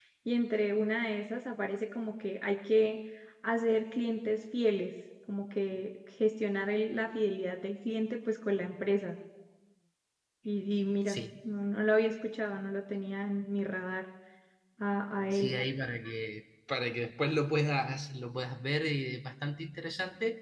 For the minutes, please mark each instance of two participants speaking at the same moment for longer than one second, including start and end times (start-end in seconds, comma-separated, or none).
none